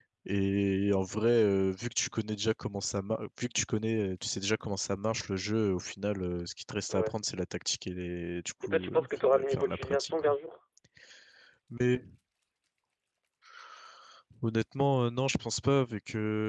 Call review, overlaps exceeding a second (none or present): present